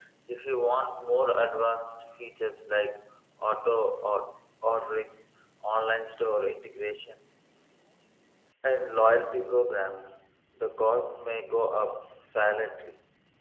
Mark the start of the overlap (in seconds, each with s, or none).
none